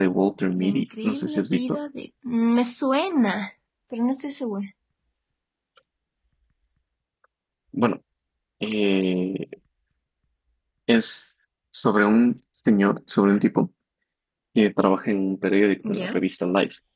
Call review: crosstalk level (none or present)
present